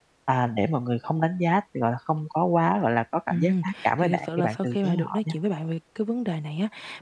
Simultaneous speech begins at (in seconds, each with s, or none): 3.3 s